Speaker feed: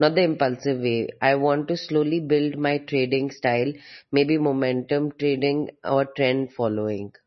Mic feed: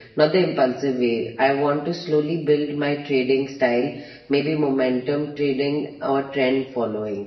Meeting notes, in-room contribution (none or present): none